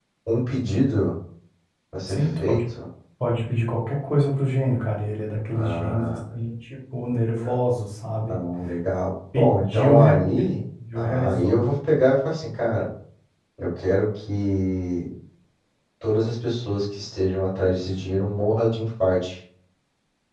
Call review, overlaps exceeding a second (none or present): present